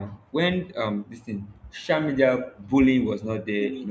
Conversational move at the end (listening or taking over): listening